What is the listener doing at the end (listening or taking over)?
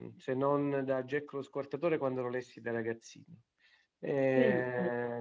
listening